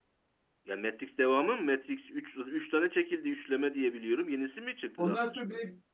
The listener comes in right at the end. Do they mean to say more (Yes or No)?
Yes